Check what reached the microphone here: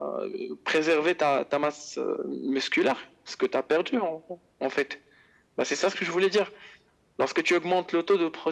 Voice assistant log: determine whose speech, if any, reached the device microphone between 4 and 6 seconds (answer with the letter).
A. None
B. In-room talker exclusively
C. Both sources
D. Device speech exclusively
D